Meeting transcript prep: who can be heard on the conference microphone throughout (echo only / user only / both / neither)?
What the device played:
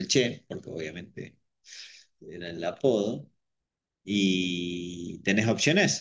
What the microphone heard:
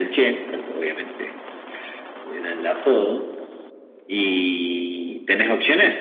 echo only